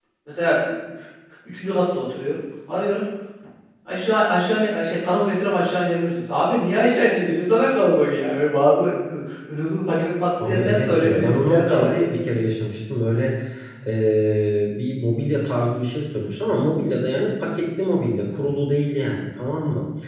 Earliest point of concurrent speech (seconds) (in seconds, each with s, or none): 10.4 s